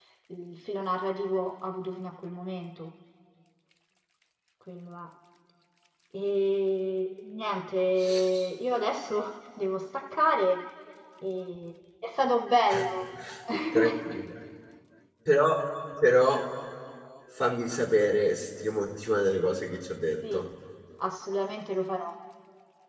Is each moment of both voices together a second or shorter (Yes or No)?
Yes